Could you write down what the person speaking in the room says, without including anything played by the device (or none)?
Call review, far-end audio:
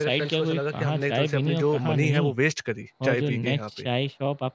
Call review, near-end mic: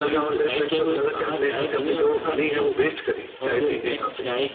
none